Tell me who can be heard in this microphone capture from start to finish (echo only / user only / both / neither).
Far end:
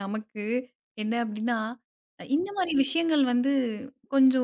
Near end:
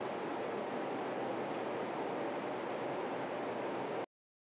neither